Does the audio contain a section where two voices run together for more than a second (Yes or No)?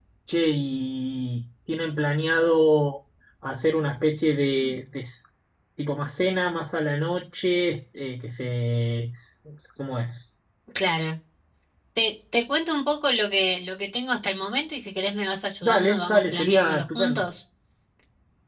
Yes